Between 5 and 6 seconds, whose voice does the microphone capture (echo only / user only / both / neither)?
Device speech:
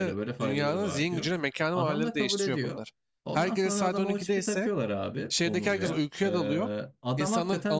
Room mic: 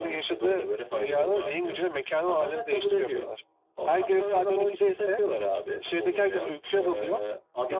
echo only